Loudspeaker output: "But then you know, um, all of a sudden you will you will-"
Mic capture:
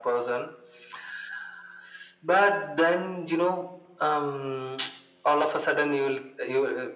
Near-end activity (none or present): none